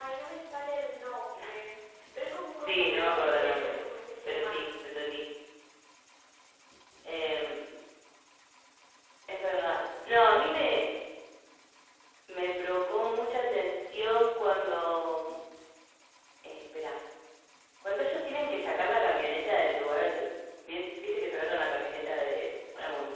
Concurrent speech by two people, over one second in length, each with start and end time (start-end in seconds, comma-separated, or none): 2.5-3.8